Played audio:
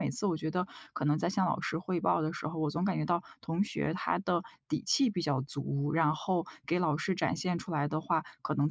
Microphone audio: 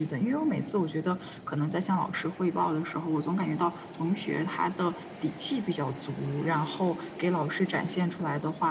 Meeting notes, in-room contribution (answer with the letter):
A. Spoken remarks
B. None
B